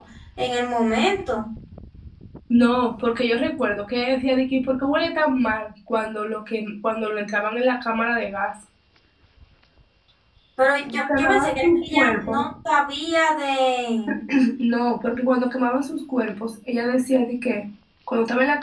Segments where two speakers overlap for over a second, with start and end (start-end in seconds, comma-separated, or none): 11.0-12.4